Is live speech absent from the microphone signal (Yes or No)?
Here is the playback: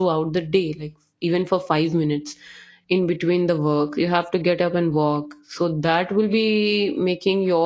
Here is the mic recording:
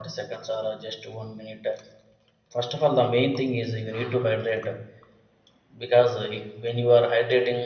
No